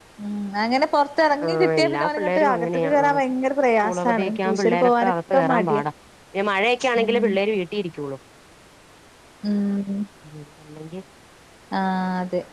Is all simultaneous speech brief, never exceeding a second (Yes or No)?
No